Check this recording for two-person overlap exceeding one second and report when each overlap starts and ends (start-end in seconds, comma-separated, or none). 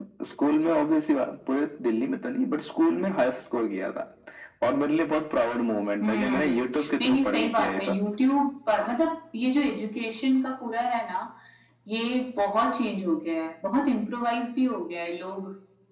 6.0-8.0